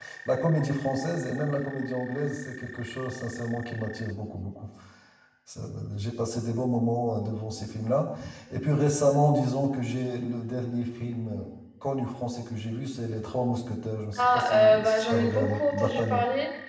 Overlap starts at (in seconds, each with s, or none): 14.2 s